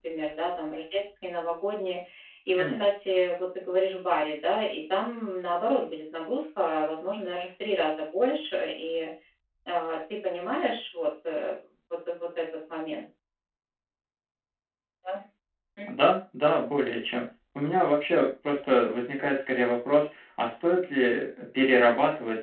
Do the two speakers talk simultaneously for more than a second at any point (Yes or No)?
No